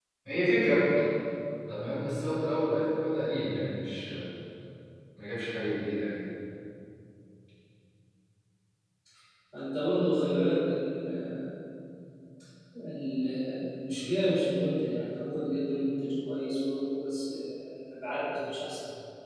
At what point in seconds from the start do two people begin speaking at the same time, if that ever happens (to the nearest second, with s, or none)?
none